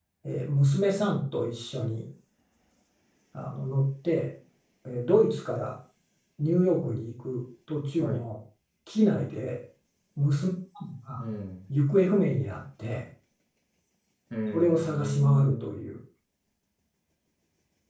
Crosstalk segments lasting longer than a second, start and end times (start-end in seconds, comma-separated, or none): 14.5-16.0